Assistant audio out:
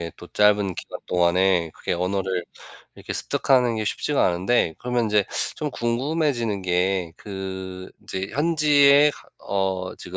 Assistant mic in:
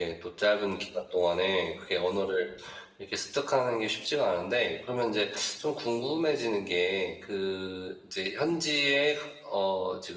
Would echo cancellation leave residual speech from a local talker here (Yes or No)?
No